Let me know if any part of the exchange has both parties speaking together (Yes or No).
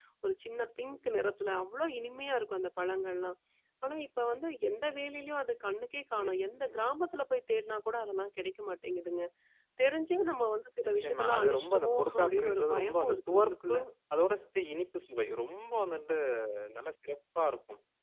Yes